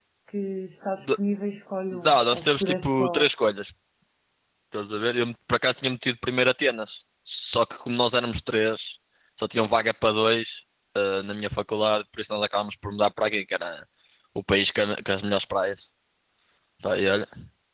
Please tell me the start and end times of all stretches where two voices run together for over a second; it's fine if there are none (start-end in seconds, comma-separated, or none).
1.9-3.2